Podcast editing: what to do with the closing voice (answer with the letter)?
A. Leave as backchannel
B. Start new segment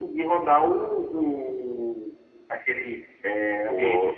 A